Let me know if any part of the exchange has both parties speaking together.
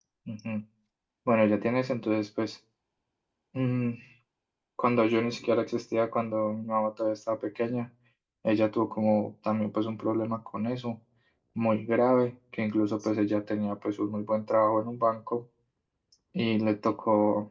No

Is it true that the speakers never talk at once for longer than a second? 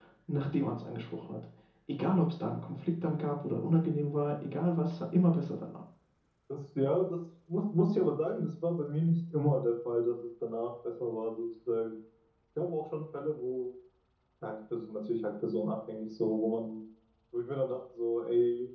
Yes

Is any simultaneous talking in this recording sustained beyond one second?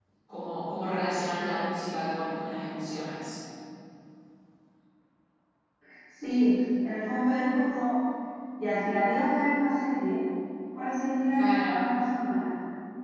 No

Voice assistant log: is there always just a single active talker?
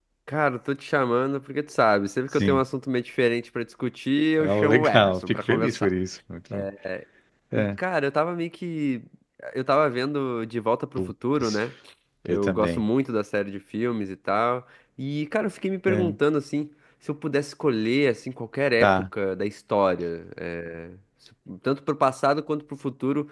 No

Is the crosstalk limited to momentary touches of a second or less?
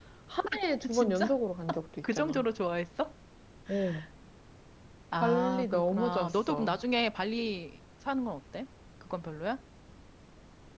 No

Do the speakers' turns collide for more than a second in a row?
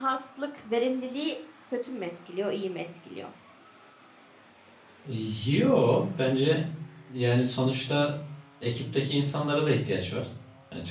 No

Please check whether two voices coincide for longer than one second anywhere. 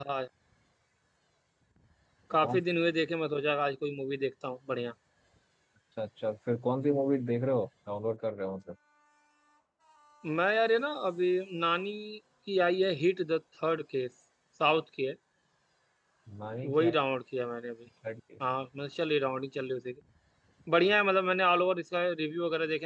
No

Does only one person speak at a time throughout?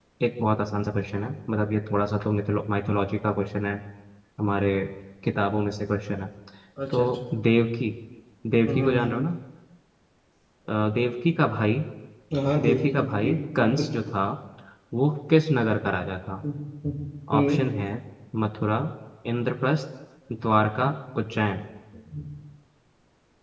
No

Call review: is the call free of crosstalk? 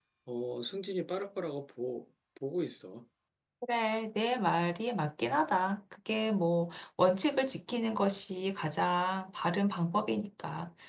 Yes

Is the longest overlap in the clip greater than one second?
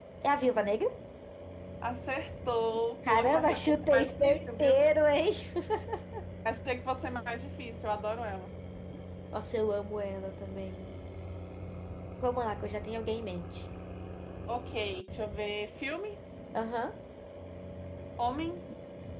Yes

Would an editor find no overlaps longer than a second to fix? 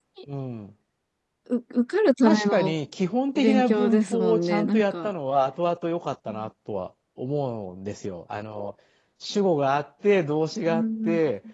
No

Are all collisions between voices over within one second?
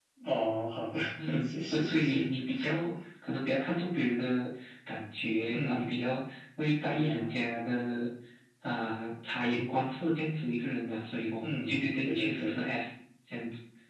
No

